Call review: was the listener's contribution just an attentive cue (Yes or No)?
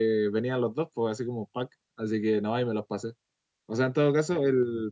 Yes